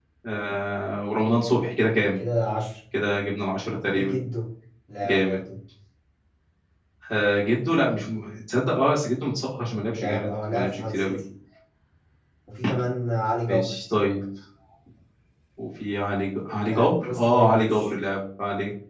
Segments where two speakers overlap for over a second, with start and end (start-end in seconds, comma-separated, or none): 9.9-11.2, 16.7-17.9